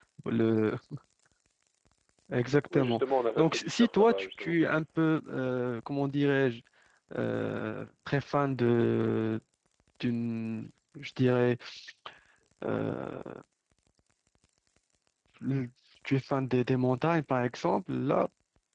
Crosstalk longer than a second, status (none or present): present